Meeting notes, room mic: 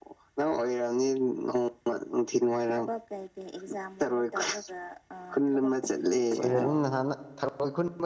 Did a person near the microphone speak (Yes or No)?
Yes